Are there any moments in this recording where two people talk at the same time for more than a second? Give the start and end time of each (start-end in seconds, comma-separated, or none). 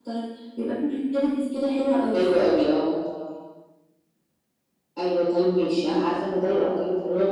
none